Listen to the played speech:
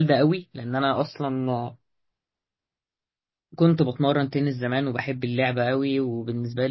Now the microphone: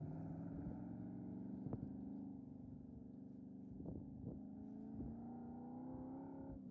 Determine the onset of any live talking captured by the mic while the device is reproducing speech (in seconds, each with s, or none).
none